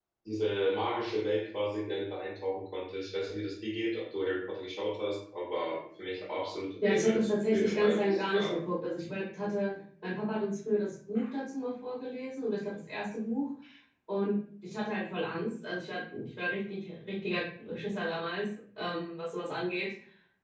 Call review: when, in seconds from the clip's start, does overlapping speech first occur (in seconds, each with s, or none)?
6.8 s